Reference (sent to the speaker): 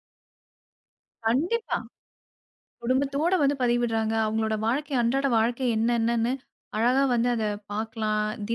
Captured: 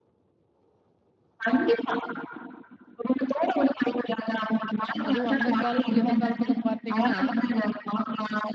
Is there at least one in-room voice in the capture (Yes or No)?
Yes